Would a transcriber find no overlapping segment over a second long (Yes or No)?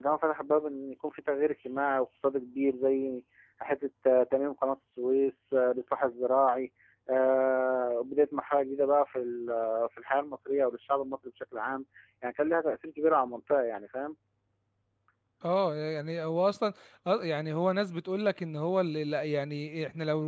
Yes